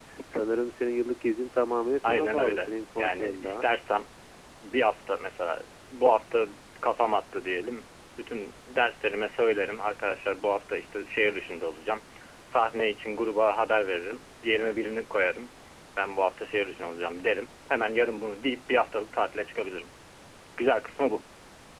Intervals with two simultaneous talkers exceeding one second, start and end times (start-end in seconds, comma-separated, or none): 2.0-3.6